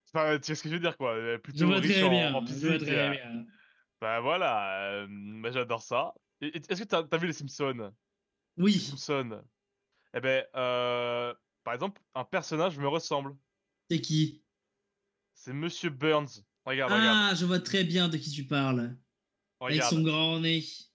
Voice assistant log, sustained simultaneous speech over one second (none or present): present